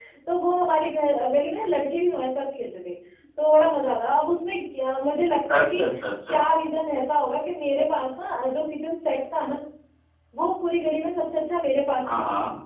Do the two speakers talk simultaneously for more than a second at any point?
No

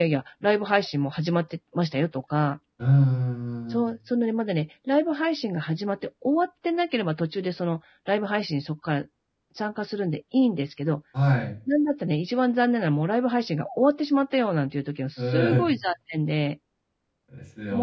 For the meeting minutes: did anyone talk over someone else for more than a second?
No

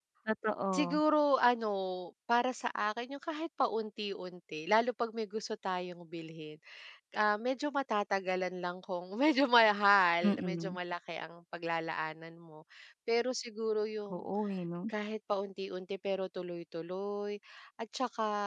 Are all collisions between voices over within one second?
Yes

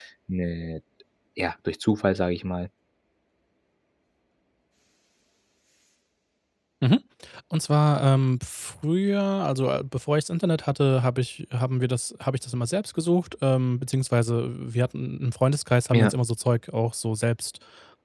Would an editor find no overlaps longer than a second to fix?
Yes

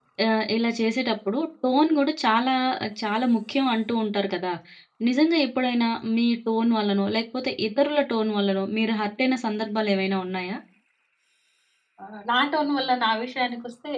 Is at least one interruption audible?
No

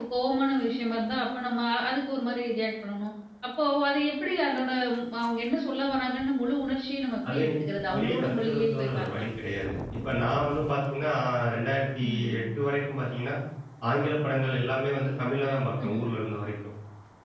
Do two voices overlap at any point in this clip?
Yes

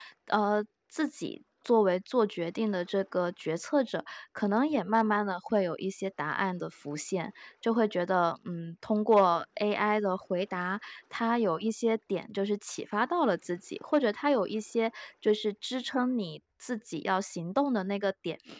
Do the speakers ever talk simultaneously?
No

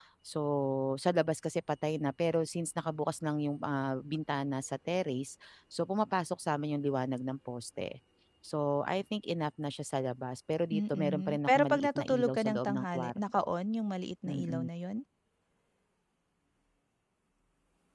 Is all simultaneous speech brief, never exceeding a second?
No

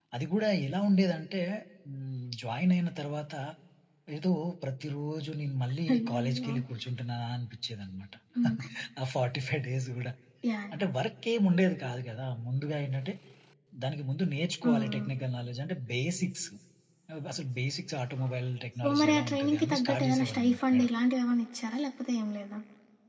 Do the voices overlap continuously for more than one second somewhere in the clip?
Yes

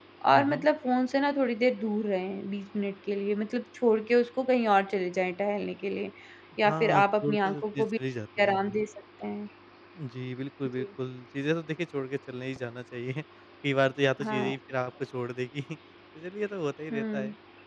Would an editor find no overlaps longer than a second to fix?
No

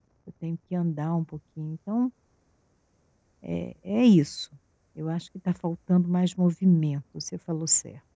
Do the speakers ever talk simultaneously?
No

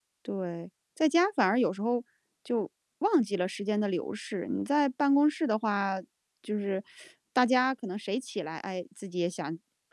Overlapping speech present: No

